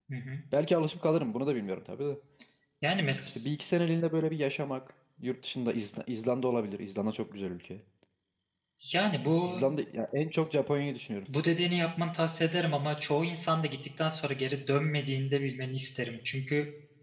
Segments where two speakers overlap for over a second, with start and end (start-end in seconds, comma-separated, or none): none